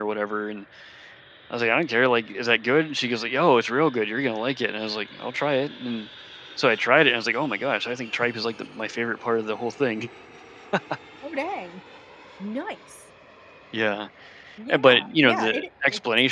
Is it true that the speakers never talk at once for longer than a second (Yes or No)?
No